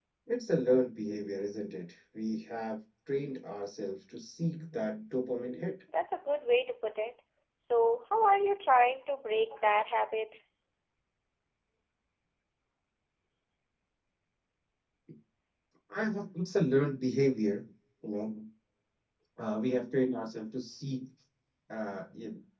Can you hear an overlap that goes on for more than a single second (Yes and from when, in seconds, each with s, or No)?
No